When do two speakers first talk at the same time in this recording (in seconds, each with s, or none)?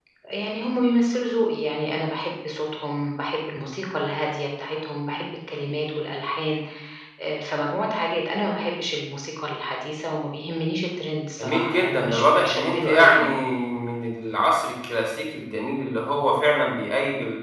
11.4 s